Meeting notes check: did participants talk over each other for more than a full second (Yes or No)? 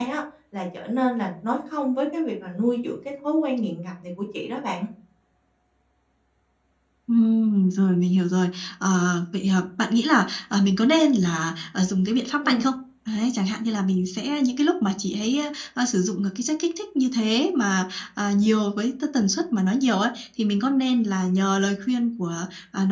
No